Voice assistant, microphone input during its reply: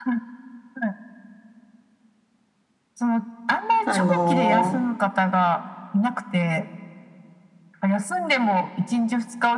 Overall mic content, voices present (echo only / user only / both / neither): both